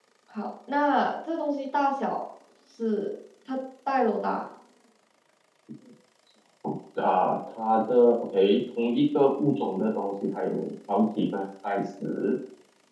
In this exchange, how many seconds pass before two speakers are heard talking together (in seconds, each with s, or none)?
none